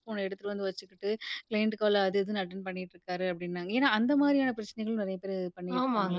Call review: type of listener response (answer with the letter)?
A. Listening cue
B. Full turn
B